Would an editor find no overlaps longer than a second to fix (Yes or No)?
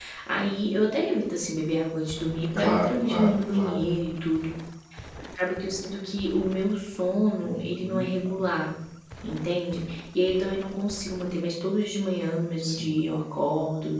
No